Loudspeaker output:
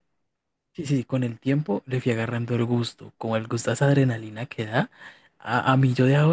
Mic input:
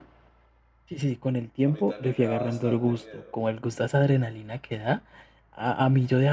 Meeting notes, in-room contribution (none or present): present